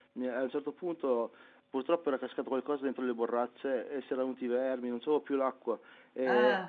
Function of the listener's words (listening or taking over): listening